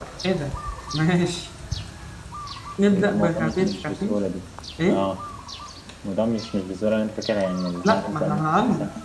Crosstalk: present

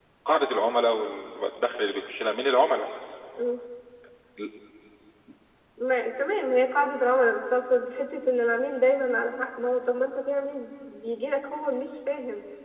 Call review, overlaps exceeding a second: none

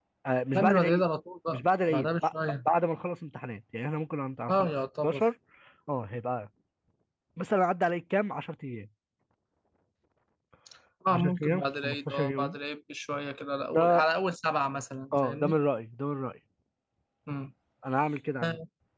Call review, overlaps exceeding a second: present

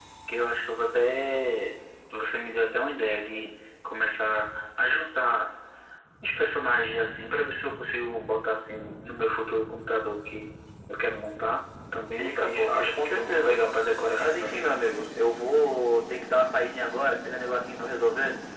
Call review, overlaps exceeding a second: present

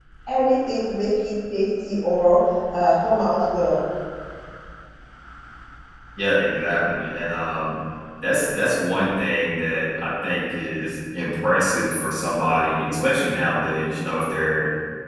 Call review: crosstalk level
none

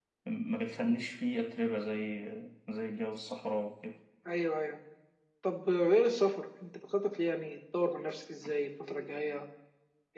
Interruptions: none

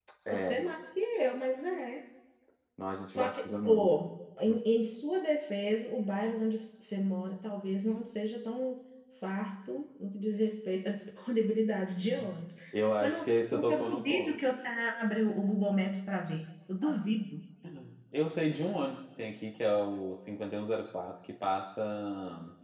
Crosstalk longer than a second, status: present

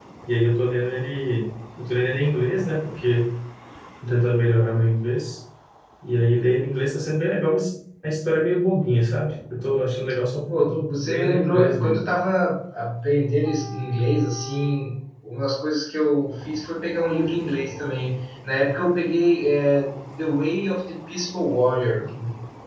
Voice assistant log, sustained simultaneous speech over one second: present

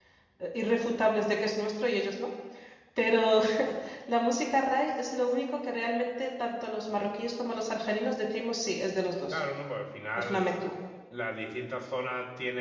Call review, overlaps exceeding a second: none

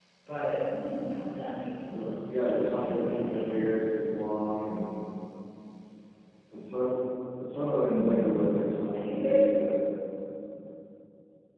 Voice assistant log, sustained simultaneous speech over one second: present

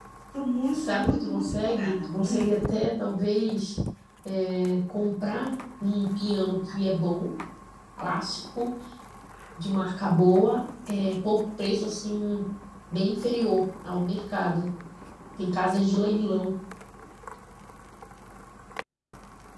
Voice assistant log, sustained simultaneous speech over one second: present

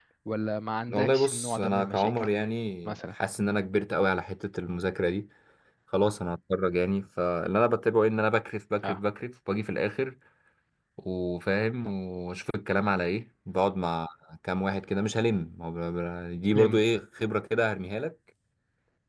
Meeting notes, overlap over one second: present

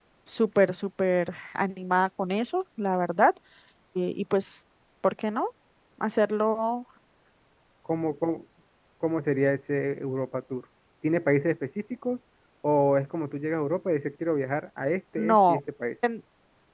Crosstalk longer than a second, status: none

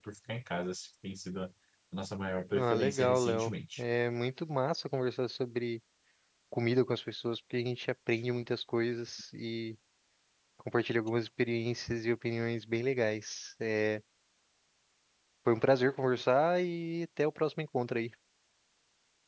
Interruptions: present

